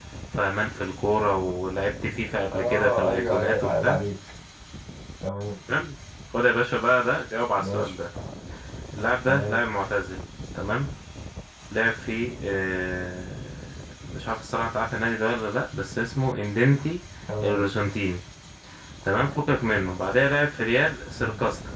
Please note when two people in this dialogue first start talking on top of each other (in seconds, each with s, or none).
2.5 s